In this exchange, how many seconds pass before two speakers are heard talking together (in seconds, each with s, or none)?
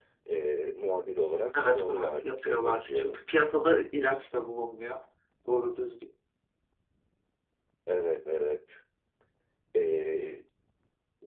1.5 s